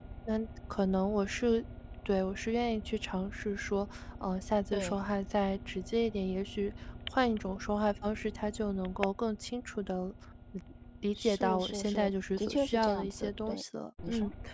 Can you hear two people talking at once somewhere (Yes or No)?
Yes